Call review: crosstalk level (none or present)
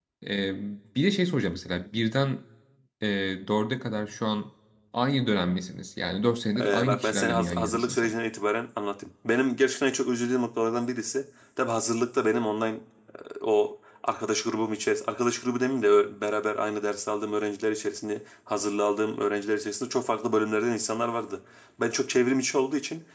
present